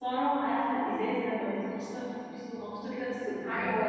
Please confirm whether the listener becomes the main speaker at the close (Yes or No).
Yes